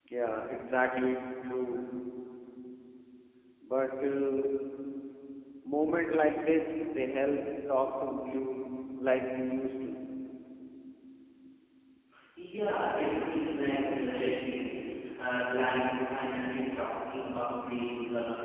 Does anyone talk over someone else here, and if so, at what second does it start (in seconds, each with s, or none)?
none